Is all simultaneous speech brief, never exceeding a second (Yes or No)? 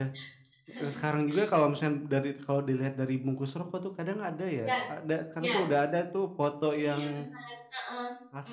Yes